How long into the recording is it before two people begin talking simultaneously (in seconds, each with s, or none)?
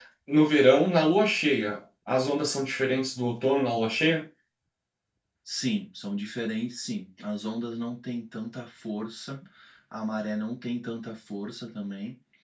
none